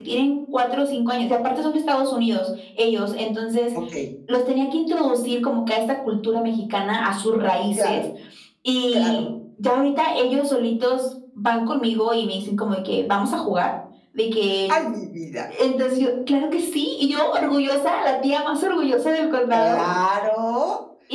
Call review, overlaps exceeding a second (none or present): none